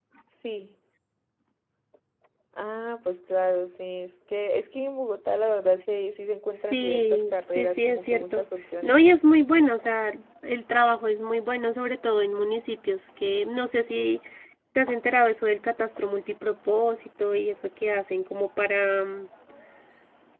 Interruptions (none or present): present